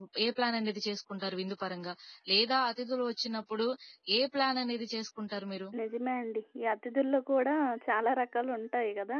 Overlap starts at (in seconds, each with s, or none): none